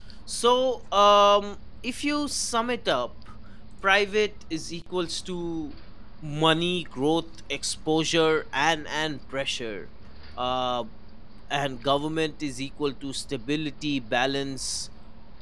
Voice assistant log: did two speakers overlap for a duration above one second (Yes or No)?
No